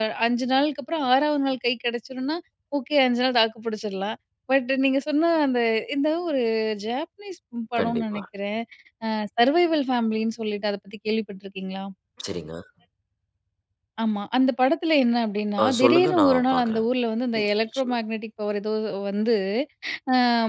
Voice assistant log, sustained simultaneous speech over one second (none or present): present